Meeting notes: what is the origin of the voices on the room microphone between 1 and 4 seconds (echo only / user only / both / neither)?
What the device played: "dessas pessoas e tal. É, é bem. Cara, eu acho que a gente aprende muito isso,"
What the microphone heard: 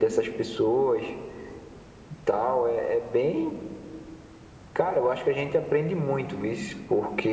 echo only